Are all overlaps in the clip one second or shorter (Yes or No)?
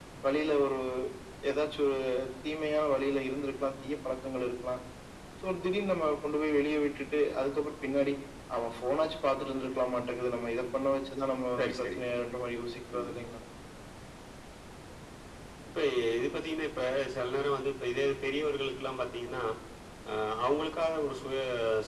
Yes